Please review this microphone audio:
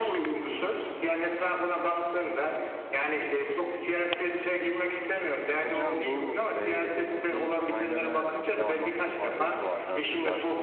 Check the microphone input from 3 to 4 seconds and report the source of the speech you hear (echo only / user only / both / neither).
echo only